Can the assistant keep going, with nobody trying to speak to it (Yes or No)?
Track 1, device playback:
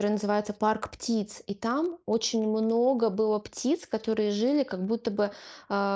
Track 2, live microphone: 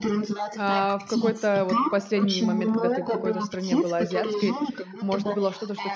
No